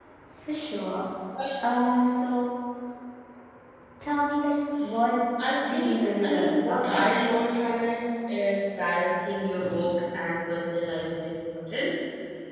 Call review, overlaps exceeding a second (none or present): present